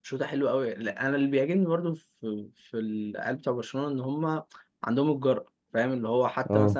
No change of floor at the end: Yes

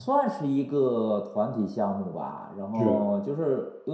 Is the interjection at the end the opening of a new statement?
No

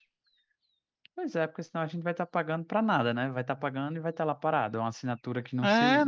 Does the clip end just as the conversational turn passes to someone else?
Yes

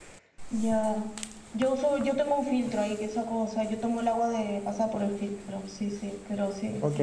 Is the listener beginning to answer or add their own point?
Yes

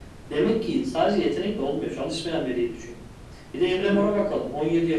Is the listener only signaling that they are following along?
Yes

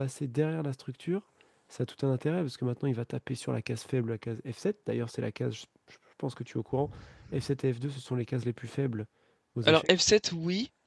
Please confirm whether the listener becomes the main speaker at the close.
Yes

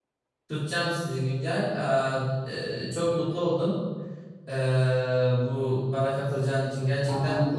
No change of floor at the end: Yes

